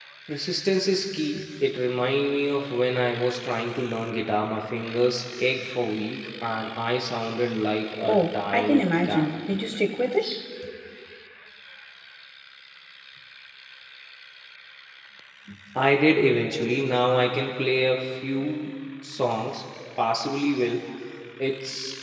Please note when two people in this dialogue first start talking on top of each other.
8.1 s

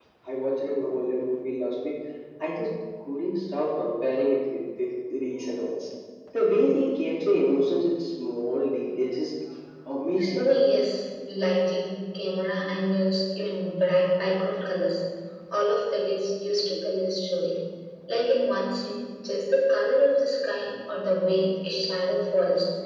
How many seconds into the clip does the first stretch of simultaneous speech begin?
none

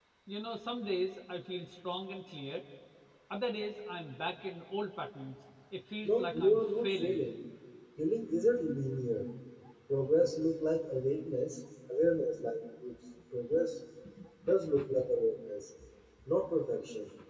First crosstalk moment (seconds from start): 6.0 s

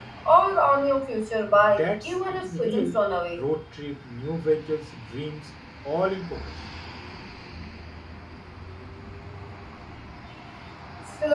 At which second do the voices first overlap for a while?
1.5 s

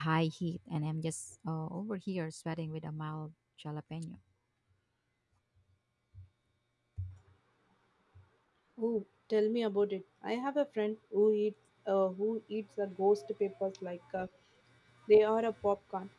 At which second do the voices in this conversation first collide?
none

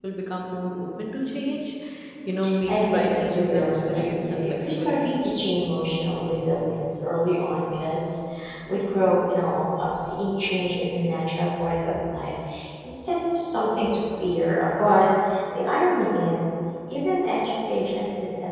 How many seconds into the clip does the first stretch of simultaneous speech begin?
2.7 s

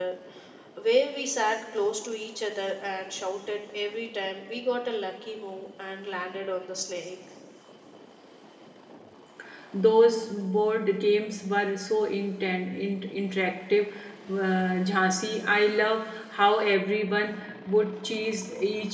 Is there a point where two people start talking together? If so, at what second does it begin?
none

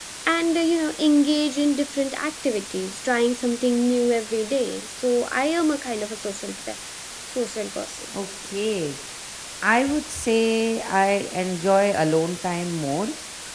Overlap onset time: none

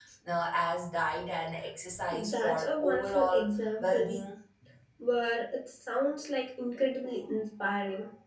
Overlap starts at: 2.1 s

